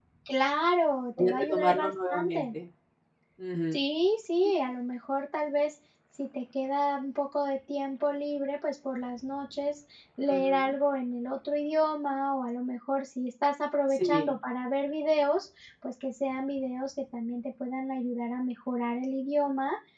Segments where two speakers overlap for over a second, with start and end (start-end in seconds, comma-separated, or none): 1.2-2.5